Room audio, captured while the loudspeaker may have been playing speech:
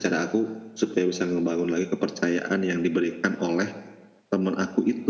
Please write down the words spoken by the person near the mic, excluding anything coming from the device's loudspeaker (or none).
none